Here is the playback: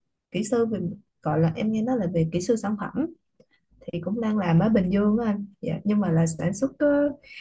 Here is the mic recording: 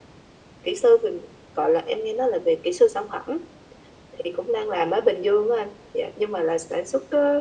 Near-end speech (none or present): none